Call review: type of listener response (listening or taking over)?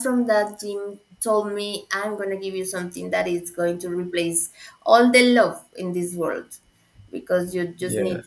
listening